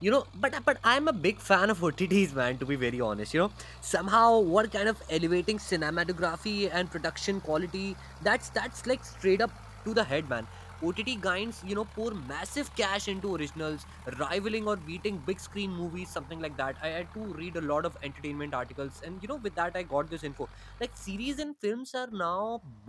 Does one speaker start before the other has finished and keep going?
No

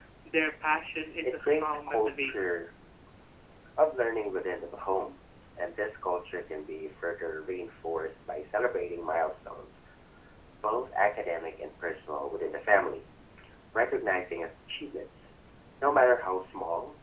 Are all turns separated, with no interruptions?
No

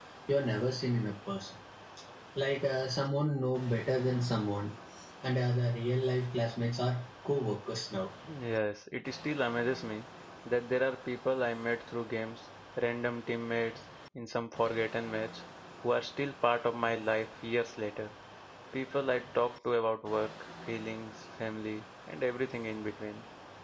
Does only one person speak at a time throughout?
Yes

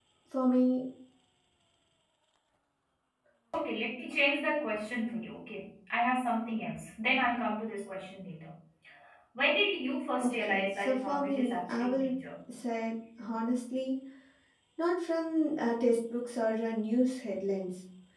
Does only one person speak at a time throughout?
No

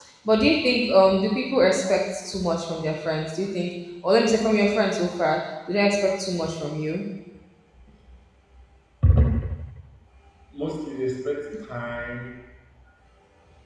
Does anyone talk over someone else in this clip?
No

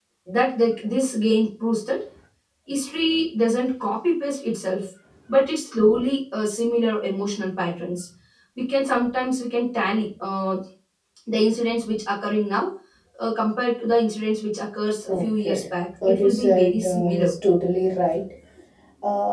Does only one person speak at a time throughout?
No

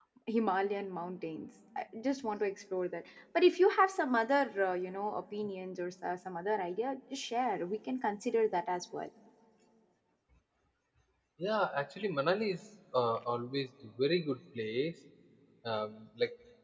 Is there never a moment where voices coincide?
Yes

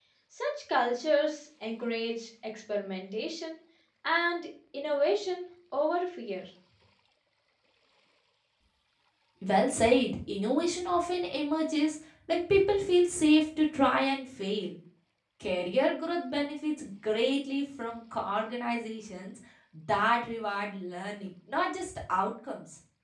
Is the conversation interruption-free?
Yes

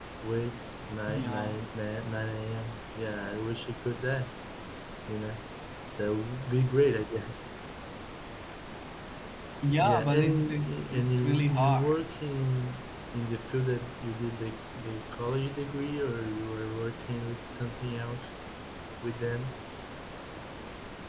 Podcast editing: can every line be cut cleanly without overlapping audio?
No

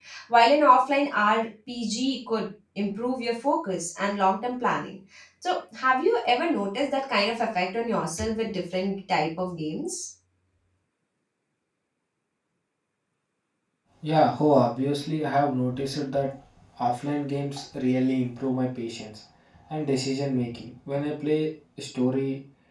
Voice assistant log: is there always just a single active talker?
Yes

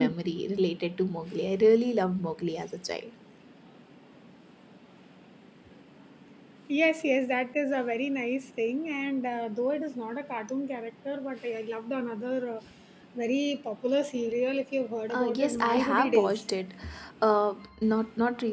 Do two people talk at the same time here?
Yes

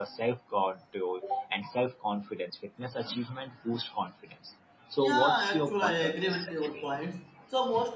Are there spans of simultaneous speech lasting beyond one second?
Yes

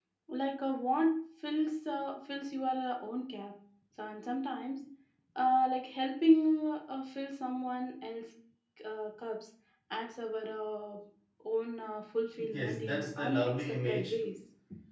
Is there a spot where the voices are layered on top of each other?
Yes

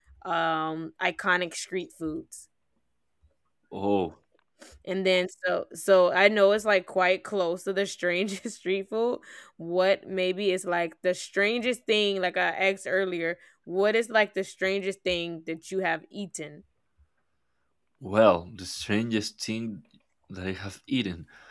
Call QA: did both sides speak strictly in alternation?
Yes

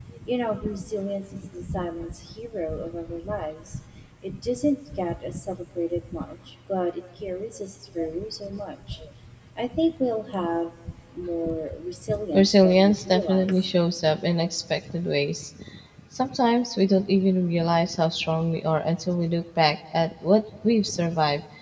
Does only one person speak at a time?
No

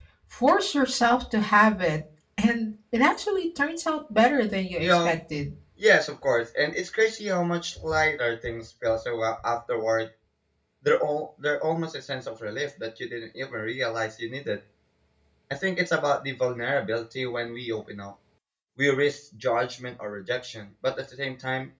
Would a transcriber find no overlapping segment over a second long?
Yes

